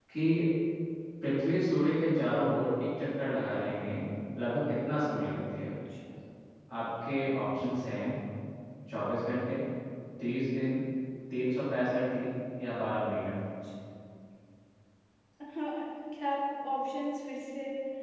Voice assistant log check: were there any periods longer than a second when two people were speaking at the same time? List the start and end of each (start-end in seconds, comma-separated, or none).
none